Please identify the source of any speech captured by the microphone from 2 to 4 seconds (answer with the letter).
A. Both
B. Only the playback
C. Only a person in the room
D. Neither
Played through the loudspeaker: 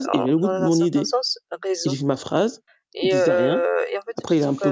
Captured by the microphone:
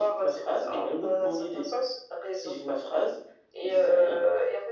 B